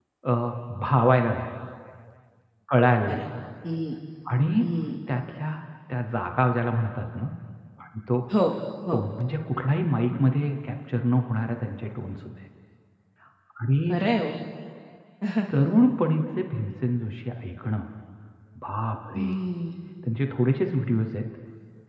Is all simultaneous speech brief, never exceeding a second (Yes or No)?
Yes